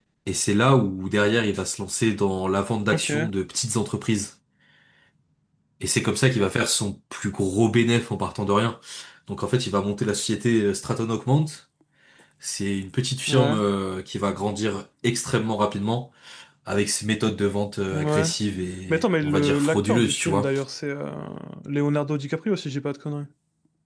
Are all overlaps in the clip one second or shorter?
No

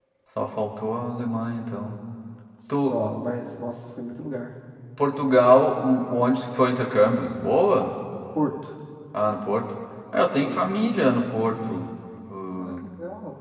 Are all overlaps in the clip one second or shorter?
Yes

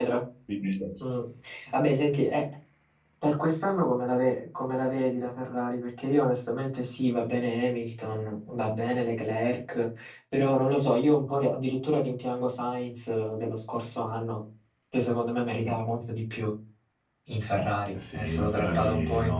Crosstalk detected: Yes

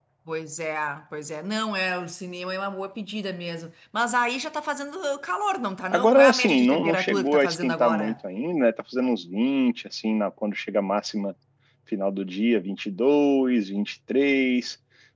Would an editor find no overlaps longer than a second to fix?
No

